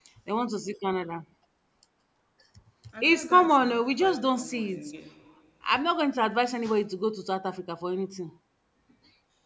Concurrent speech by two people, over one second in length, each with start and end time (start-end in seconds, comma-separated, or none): 3.1-4.8